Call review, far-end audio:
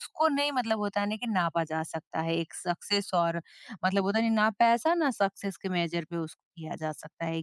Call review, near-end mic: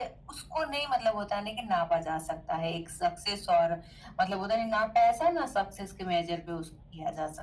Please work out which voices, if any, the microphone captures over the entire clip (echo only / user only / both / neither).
echo only